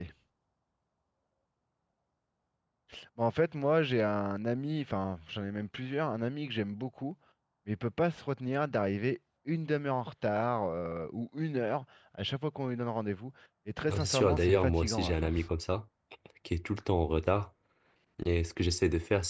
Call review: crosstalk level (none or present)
present